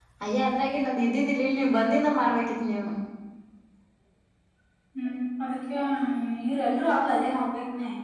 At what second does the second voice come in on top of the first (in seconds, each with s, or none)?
none